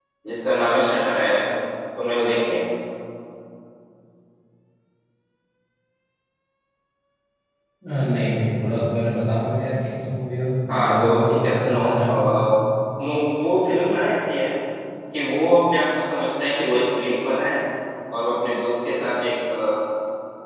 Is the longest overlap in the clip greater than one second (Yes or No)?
Yes